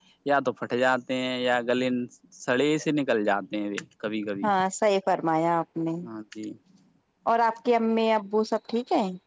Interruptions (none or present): none